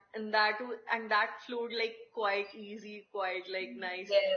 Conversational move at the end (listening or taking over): taking over